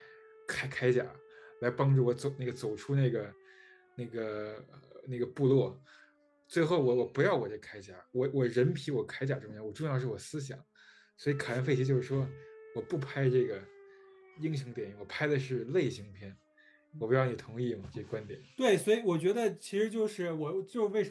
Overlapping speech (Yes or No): No